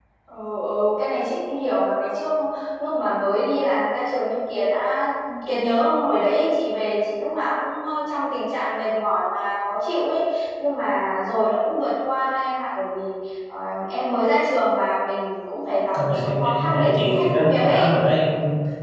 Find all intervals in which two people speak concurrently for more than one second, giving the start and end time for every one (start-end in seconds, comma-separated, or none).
15.9-17.9